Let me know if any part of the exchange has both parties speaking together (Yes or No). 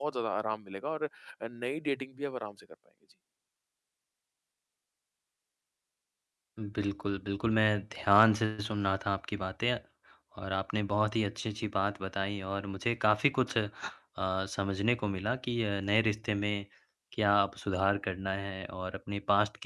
No